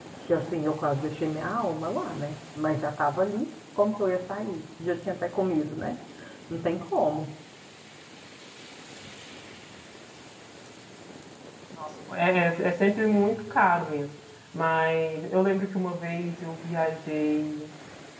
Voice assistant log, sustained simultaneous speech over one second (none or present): none